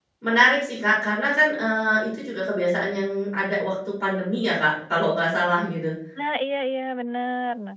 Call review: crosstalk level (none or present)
none